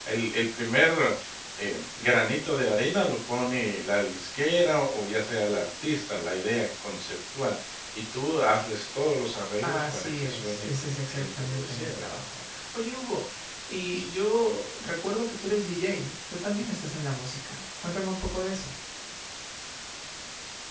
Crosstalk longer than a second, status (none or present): present